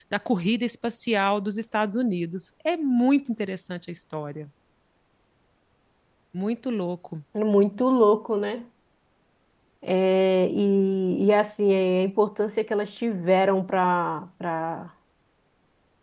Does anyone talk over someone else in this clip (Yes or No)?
No